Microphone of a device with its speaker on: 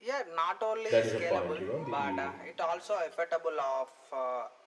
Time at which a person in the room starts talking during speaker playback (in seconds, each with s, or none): 0.9 s